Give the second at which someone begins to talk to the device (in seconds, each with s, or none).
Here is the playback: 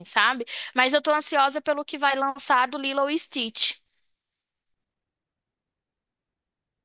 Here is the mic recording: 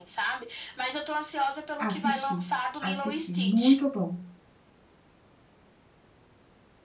1.8 s